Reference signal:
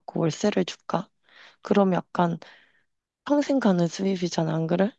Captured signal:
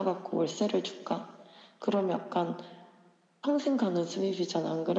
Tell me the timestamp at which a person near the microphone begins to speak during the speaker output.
none

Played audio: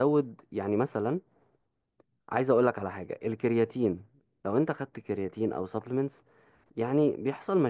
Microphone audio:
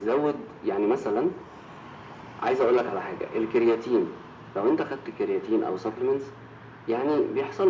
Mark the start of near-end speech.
none

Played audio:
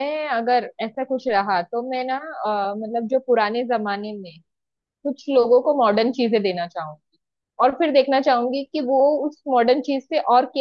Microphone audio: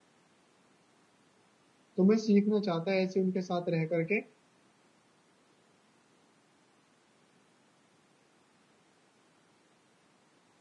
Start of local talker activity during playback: 2.0 s

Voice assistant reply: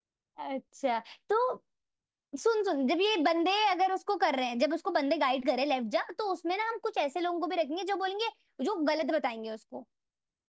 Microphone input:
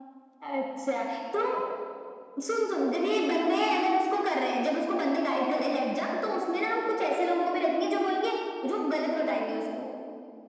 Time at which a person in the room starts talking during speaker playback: none

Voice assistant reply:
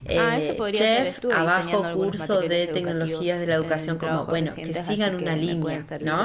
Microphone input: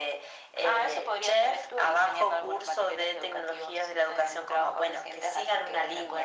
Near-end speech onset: none

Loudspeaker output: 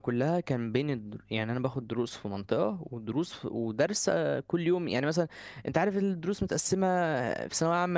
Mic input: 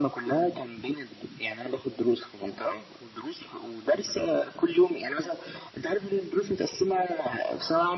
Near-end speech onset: none

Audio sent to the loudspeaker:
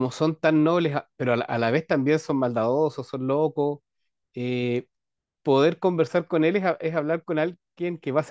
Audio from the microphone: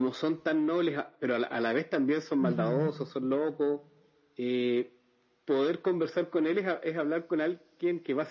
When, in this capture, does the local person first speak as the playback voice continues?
2.4 s

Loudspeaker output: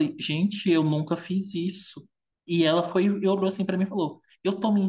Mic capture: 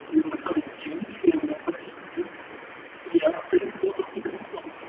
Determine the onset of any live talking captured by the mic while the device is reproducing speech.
none

